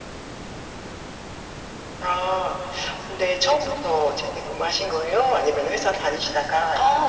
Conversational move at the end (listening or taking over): taking over